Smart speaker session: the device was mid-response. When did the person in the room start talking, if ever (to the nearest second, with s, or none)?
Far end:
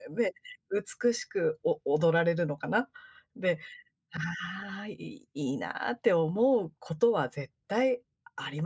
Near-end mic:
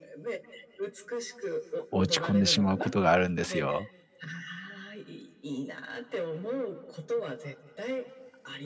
2 s